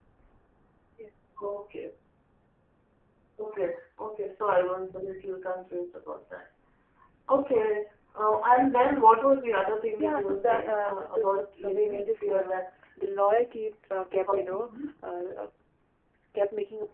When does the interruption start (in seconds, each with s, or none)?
10.0 s